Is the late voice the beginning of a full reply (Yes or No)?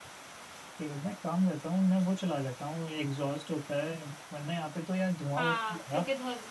Yes